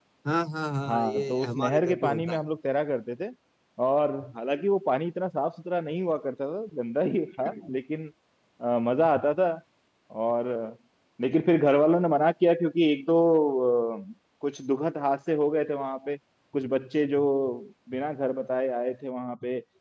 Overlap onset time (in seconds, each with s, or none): 0.9 s